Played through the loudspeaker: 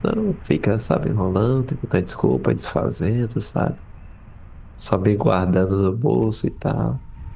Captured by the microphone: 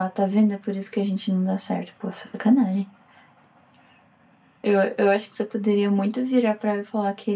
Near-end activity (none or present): present